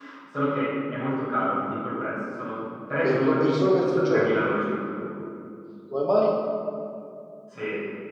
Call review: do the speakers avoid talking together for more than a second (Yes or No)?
No